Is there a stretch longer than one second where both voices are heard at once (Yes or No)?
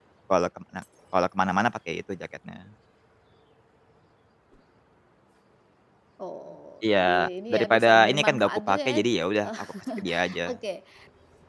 Yes